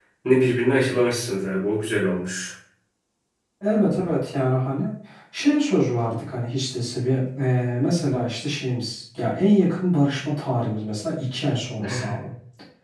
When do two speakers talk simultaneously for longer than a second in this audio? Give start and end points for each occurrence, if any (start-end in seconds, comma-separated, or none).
none